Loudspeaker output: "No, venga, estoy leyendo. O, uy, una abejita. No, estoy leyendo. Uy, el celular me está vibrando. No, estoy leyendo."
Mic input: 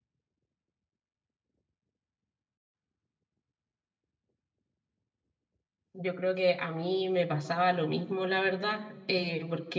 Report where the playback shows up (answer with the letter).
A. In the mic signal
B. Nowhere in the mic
B